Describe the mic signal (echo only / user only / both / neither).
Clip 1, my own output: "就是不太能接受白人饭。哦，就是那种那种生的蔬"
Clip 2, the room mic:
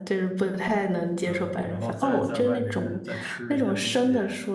both